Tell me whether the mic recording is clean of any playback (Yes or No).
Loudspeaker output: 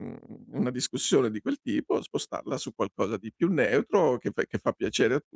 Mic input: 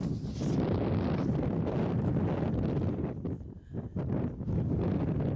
Yes